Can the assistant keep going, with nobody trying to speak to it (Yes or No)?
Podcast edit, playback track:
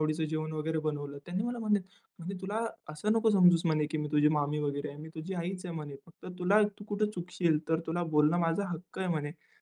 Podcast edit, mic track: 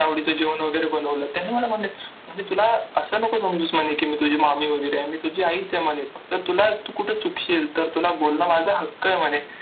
Yes